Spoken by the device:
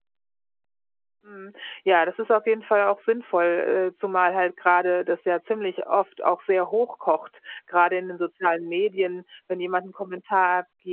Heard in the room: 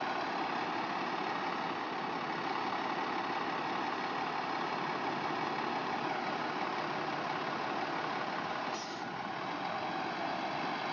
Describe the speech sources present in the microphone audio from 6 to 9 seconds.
neither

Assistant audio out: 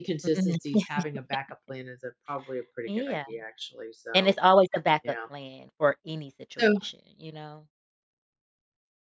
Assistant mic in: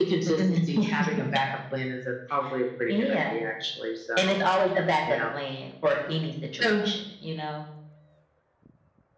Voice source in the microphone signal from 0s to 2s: echo only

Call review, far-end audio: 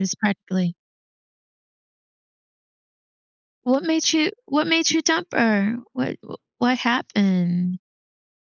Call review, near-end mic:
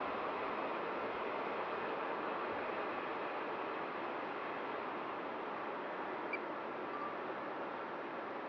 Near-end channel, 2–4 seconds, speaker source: neither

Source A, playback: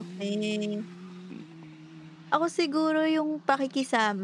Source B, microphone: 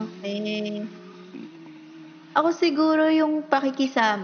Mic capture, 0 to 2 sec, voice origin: echo only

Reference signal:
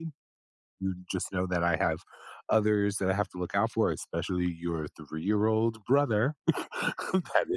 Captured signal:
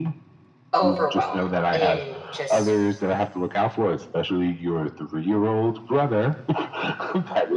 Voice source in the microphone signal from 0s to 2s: both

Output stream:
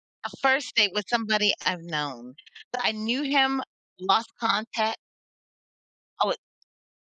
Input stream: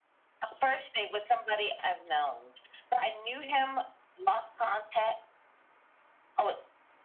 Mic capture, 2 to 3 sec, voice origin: echo only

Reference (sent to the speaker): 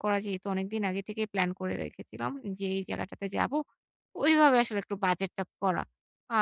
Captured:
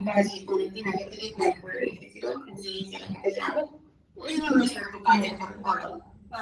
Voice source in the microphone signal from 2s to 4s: echo only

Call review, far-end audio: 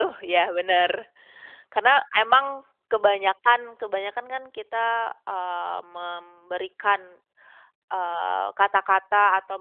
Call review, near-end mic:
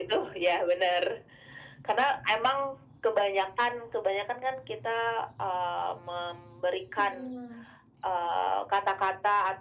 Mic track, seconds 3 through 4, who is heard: echo only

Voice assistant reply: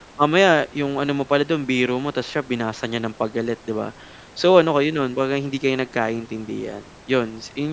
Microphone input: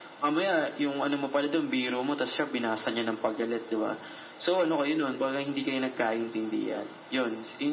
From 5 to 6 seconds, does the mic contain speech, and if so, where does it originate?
echo only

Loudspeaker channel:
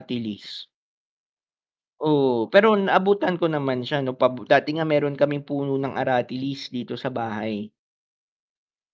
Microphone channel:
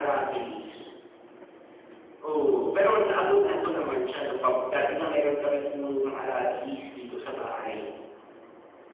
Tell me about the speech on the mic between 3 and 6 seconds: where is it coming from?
echo only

